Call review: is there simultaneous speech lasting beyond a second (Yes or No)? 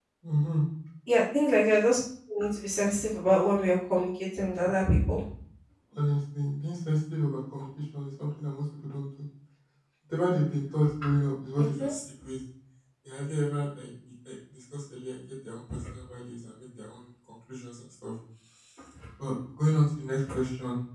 No